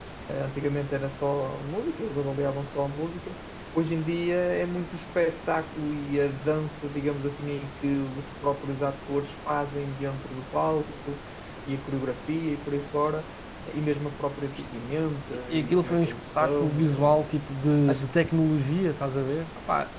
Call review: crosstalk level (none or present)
present